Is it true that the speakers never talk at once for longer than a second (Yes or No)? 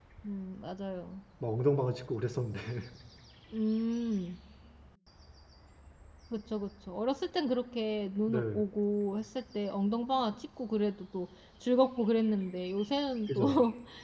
Yes